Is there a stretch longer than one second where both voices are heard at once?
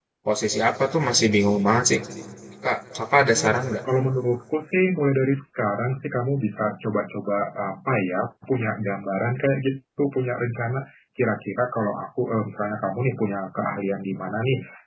No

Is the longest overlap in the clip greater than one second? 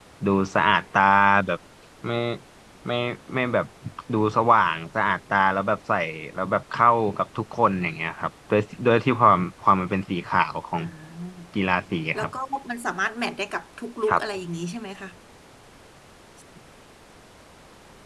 No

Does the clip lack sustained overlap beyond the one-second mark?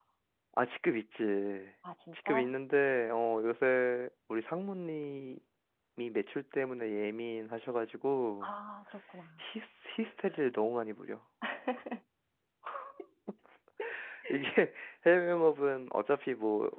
Yes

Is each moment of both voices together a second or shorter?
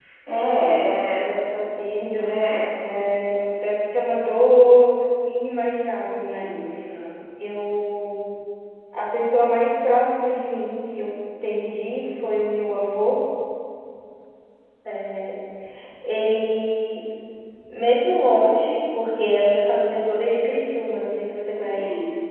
Yes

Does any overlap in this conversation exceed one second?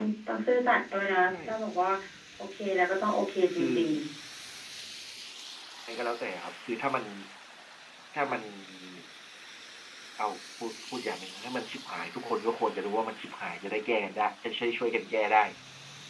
No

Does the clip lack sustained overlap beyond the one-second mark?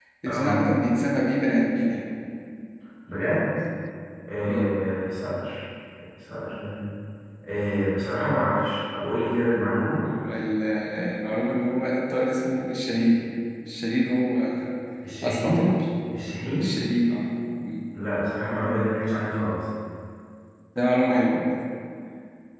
Yes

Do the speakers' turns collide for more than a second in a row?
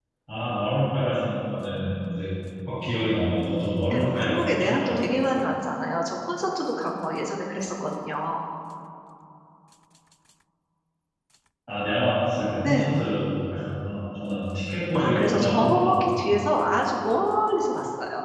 Yes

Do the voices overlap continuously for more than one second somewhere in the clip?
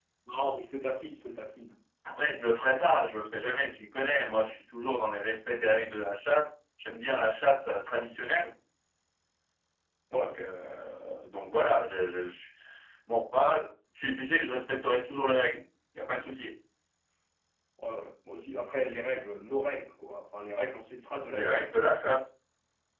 No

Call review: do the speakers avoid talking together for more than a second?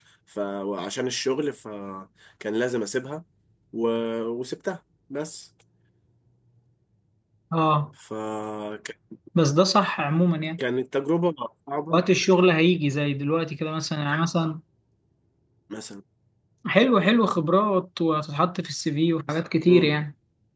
Yes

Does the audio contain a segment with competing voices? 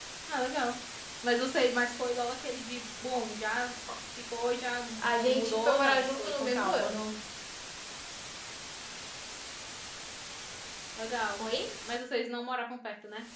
Yes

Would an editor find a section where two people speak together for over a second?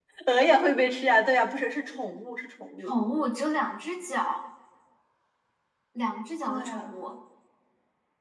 No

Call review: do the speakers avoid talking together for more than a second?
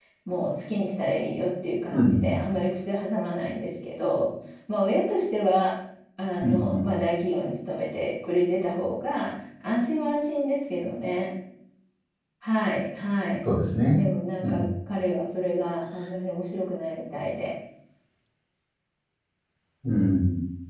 Yes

